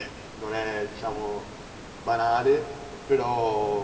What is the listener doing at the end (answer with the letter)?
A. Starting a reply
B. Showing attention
B